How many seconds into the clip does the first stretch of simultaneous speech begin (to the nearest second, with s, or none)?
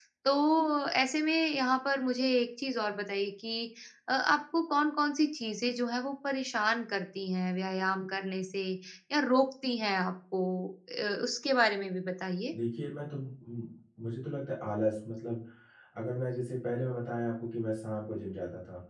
none